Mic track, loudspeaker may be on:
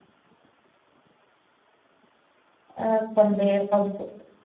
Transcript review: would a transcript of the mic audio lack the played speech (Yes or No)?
Yes